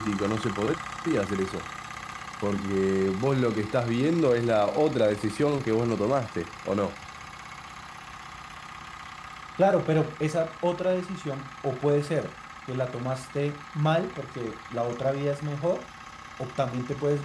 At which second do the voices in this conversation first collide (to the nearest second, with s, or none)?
none